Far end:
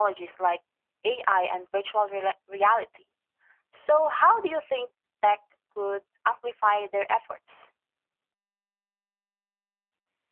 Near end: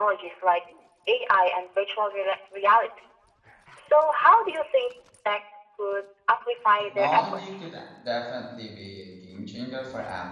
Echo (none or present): present